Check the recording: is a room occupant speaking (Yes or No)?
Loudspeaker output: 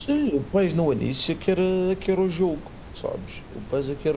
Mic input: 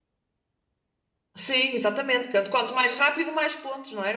Yes